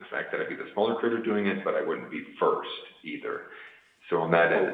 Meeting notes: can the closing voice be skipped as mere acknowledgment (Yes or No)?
Yes